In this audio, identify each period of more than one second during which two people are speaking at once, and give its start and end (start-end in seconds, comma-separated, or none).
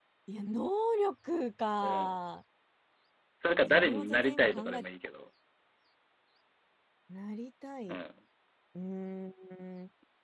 3.5-4.8